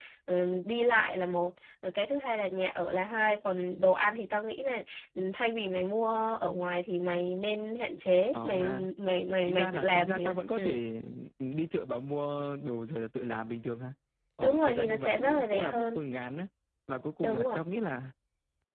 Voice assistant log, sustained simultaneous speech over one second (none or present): present